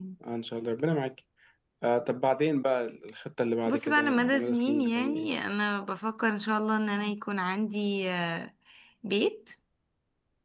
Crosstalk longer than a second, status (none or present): present